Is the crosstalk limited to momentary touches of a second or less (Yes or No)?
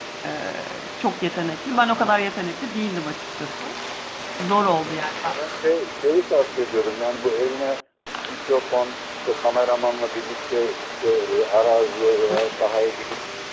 Yes